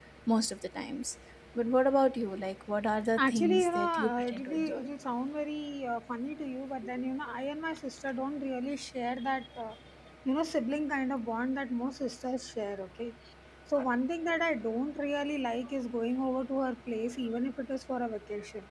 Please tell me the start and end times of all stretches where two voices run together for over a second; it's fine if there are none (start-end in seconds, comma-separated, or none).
3.2-4.9